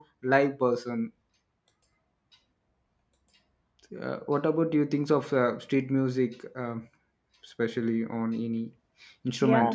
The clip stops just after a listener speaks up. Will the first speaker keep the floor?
No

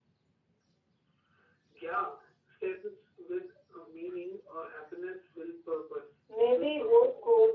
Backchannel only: No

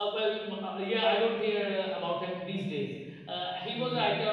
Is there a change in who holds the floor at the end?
No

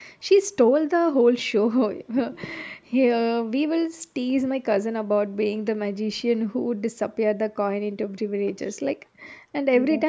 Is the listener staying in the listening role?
Yes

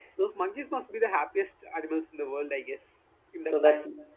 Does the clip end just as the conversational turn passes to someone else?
Yes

